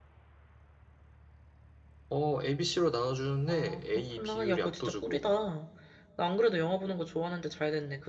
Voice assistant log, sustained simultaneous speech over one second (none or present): present